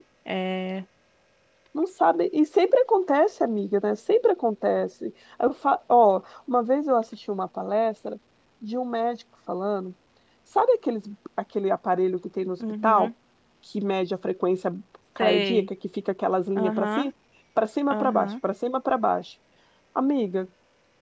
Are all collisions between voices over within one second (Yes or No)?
Yes